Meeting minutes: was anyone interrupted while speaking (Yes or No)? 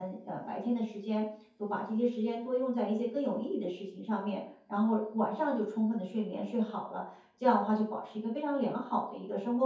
No